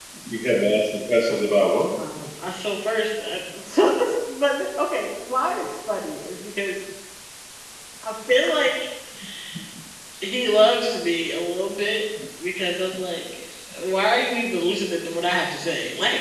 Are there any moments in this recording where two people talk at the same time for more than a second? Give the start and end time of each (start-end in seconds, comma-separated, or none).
none